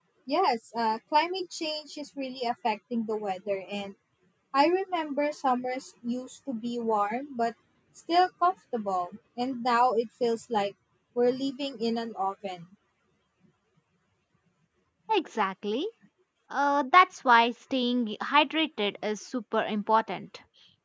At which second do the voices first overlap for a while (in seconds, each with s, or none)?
none